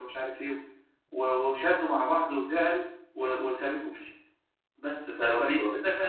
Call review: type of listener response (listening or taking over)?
listening